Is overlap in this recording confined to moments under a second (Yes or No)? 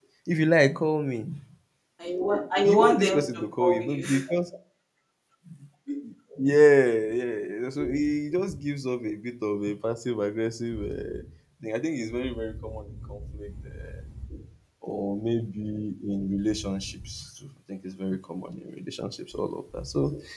No